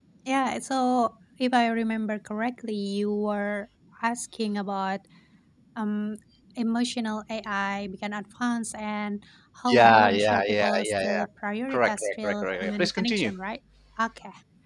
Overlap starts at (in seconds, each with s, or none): 9.7 s